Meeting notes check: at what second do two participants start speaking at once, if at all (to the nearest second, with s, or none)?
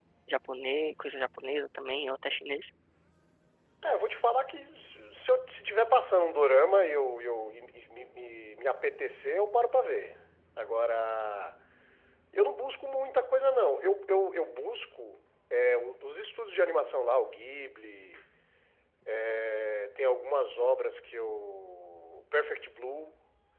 none